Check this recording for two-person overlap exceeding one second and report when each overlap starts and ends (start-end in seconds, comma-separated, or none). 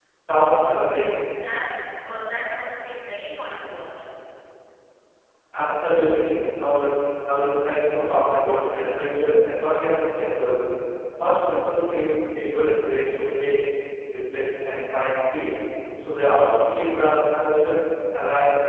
none